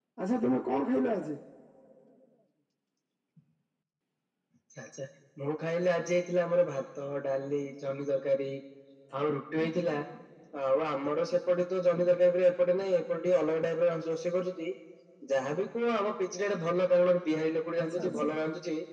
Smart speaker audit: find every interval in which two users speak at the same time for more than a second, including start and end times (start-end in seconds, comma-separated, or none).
none